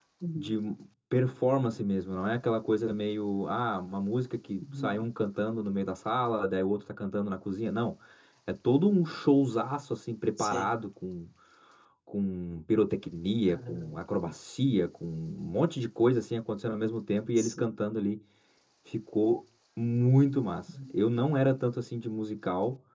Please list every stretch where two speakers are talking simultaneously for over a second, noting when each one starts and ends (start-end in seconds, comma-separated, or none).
none